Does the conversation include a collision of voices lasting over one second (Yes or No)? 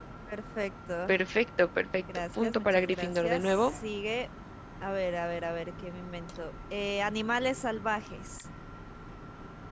Yes